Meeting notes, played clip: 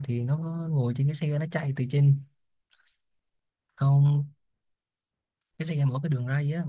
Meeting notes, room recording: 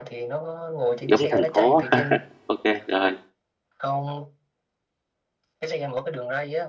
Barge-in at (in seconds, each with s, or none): 1.0 s